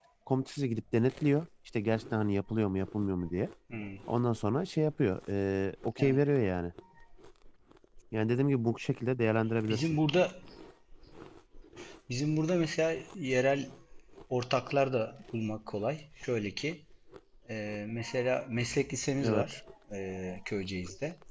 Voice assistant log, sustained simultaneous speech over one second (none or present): none